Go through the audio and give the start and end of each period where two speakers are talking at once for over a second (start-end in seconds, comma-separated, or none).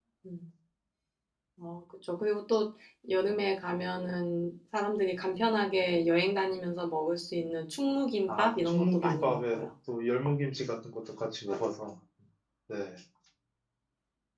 8.3-9.7